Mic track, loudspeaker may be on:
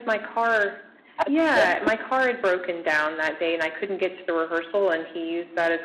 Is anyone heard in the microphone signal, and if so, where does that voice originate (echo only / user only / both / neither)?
both